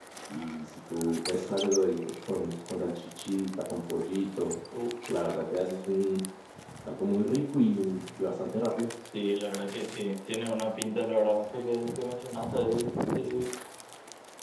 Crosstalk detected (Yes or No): No